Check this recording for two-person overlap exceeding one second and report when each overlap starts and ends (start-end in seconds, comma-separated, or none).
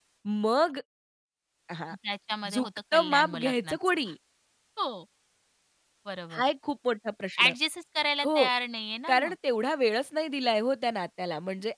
2.5-4.0